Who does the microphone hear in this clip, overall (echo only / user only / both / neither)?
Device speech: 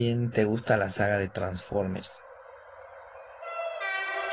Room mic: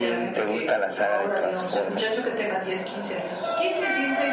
both